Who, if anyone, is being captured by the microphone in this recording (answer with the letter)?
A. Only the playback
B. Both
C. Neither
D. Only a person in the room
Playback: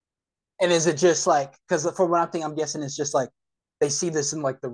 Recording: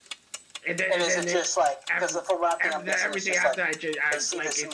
B